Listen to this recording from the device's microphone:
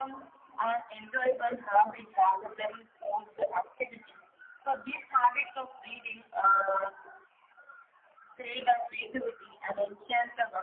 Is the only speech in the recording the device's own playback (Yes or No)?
Yes